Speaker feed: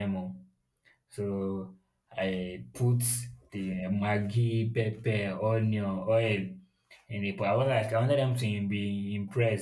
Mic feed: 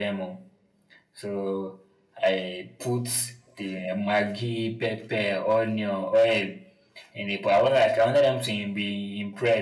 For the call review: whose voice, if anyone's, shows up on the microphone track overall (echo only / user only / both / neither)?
echo only